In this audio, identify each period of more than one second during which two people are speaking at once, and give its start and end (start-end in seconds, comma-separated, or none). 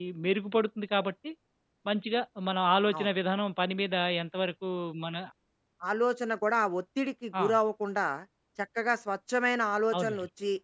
none